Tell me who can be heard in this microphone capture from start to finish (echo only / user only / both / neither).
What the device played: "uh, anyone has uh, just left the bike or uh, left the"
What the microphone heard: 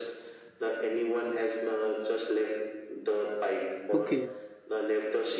both